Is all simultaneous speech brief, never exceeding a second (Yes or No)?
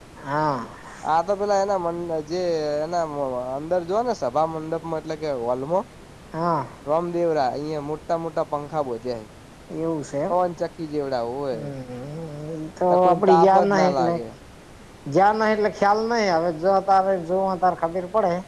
No